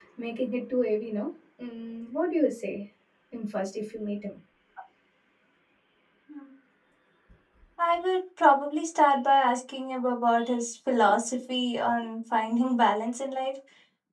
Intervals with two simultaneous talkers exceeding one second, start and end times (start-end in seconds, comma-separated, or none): none